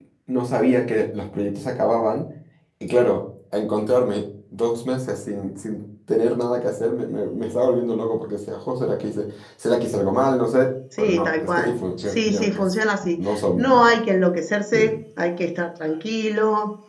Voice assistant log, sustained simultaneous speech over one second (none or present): present